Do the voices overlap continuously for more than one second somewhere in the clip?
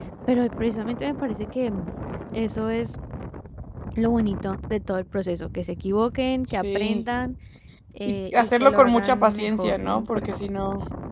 Yes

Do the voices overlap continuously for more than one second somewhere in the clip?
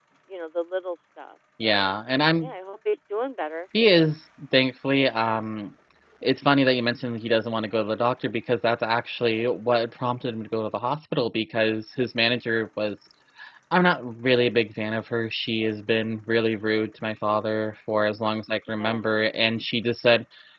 No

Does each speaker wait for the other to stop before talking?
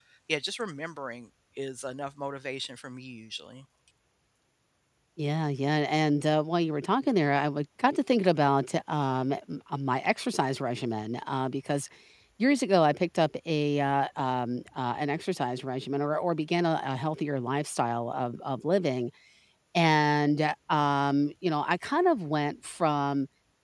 Yes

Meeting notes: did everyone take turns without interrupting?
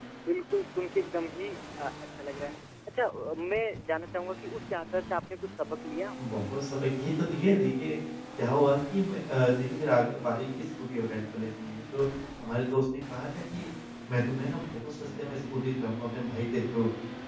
Yes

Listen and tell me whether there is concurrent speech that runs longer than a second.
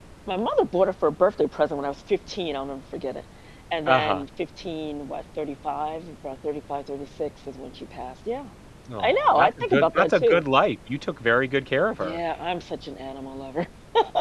Yes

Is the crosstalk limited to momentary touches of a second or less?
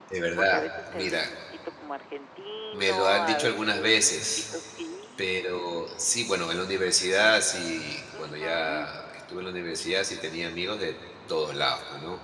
No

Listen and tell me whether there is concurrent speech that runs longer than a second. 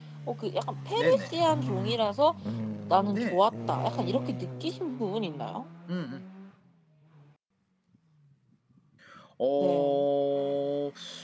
No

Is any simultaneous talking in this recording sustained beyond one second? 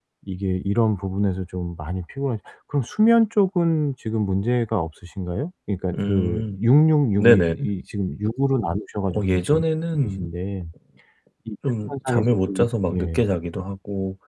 Yes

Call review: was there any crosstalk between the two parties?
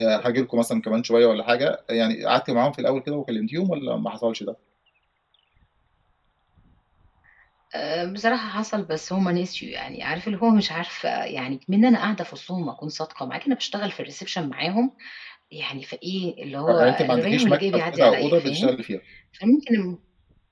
Yes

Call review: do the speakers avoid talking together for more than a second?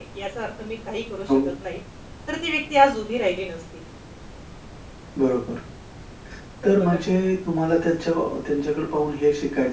Yes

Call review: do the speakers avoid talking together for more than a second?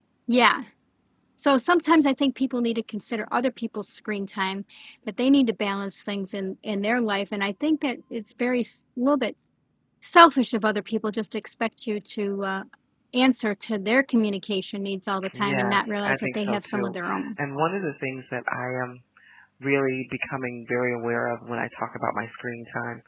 No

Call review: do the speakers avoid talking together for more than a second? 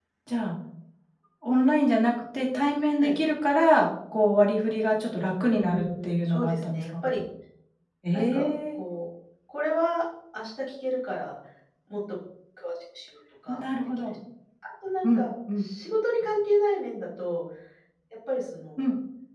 No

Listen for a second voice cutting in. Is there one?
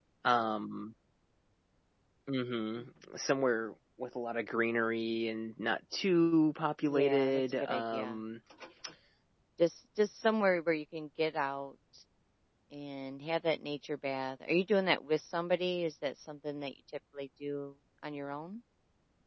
Yes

